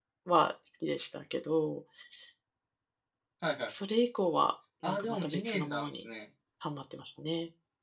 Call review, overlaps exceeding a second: present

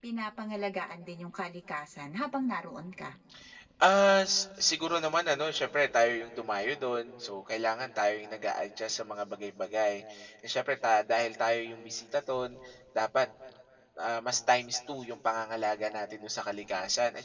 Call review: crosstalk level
none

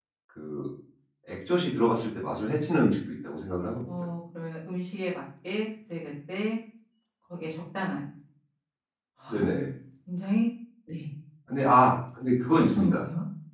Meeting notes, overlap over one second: none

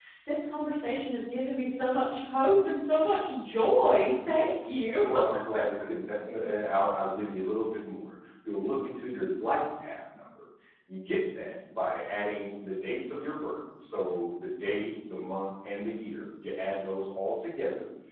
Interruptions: none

